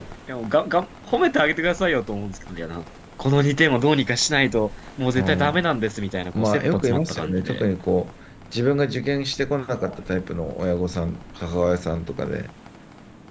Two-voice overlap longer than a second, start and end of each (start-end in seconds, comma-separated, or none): 6.3-7.7